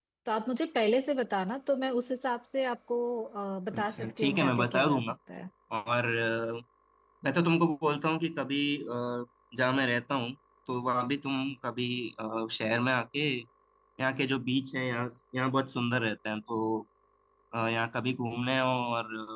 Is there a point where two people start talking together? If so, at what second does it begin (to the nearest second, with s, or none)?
4 s